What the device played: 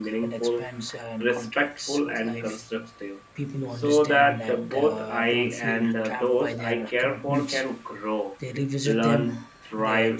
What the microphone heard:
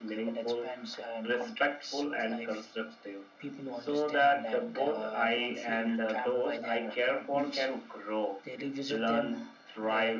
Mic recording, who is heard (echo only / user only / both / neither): echo only